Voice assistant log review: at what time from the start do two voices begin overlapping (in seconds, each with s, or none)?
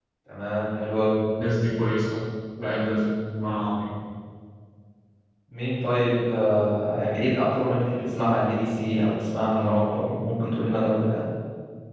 none